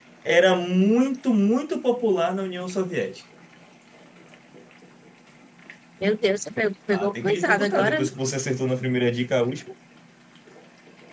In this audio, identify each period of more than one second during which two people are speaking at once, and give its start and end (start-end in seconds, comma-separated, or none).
6.9-8.1